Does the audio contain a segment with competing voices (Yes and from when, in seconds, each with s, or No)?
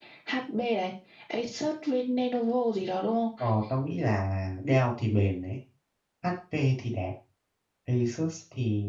No